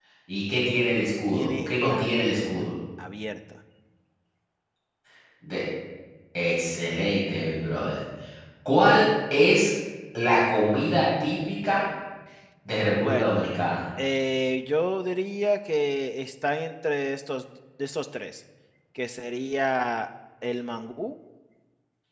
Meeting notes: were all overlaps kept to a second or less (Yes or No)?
No